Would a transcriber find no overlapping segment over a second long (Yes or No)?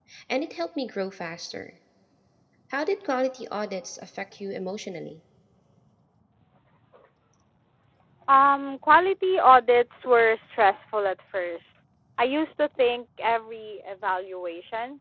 Yes